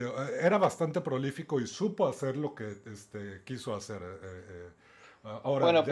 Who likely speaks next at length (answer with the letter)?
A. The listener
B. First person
A